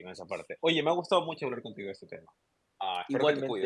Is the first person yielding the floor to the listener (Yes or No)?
Yes